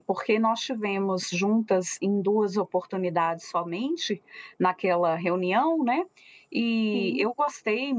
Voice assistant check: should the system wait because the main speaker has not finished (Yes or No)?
Yes